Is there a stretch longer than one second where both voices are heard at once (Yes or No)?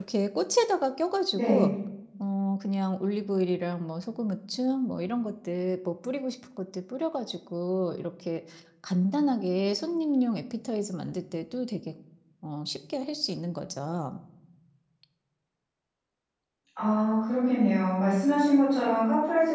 No